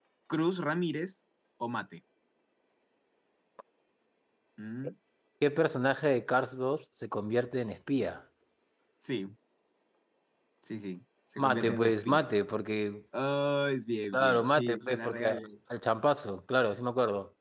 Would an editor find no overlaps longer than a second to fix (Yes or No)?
No